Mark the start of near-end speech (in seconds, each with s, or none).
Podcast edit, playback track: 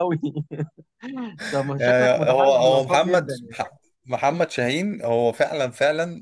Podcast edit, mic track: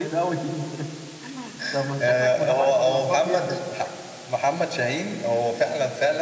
none